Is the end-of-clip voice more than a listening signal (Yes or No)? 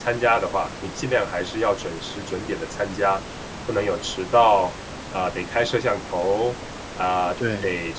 No